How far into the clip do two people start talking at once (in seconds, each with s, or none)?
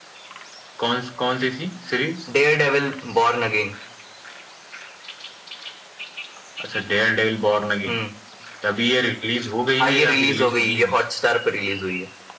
9.8 s